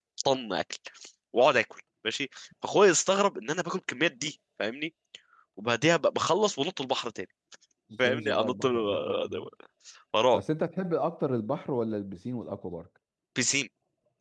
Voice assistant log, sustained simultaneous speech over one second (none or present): present